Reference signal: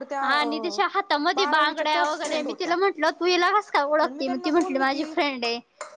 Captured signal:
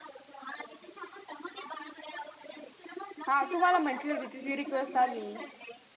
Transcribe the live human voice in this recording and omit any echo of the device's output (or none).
हा तू मला म्हटली होती तिझी रिक्वेस्ट आली.